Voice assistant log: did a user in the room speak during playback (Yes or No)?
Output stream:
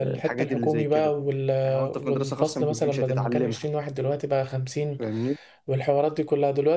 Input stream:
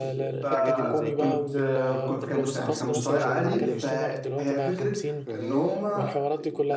Yes